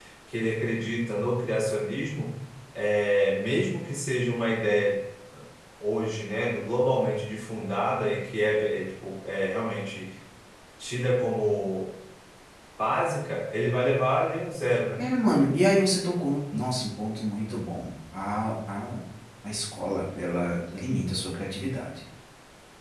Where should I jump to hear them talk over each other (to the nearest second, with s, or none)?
none